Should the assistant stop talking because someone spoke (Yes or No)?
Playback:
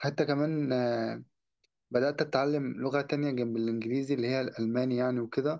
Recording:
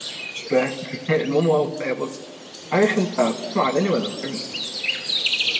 Yes